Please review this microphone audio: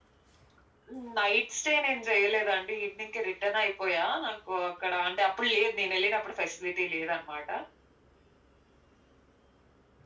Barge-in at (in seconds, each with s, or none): none